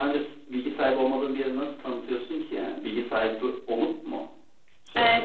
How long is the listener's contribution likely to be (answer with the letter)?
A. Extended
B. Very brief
A